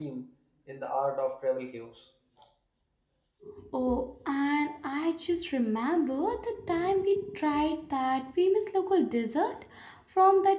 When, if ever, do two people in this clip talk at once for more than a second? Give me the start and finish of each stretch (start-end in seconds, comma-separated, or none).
none